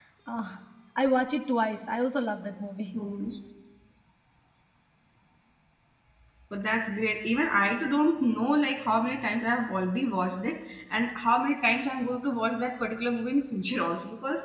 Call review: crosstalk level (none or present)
none